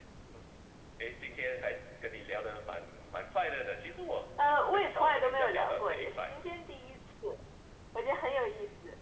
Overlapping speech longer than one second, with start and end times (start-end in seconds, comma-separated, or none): 4.7-6.3